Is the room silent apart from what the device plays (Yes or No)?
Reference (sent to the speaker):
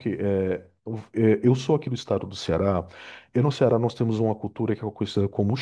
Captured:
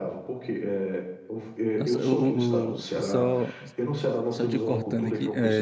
No